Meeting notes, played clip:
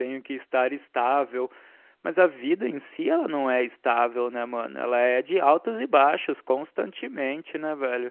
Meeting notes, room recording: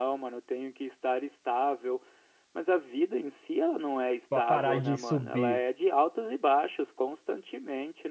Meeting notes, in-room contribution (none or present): present